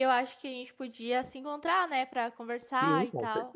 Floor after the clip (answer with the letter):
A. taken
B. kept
A